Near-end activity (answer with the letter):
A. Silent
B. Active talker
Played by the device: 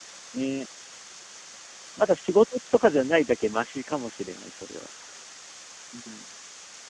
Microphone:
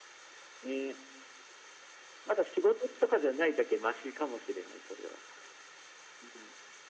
A